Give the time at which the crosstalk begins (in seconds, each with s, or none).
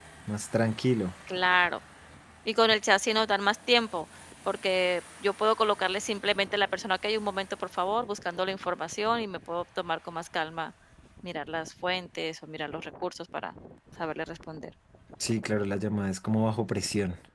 none